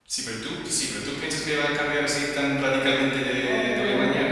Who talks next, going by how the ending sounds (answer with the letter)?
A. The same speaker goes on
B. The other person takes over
B